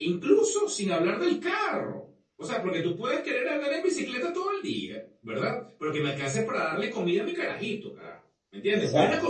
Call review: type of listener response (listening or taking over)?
listening